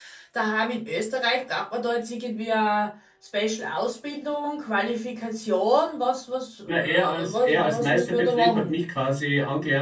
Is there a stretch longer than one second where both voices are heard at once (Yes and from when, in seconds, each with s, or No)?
Yes, from 6.7 s